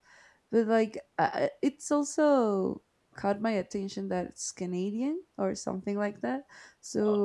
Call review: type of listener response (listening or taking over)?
listening